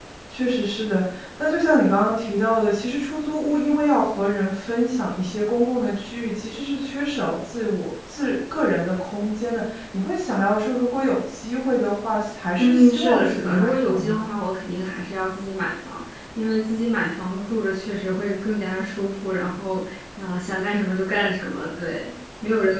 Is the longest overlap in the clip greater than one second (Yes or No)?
Yes